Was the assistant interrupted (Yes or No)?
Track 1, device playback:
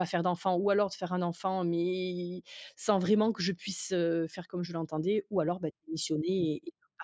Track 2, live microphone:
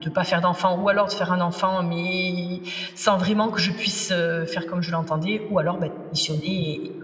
No